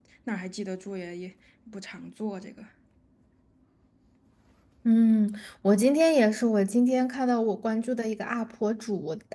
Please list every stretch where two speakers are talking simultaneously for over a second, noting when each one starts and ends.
none

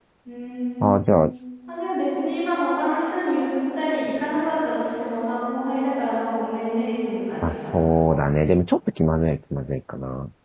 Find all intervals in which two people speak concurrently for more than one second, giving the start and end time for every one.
none

